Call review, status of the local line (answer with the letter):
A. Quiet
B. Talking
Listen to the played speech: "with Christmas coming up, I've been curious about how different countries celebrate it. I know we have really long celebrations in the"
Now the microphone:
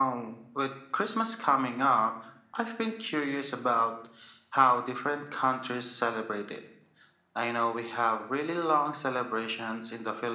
A